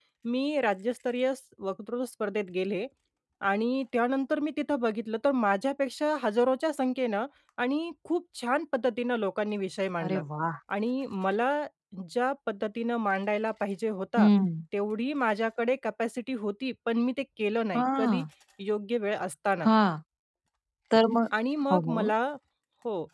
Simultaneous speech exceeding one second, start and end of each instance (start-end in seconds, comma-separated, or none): none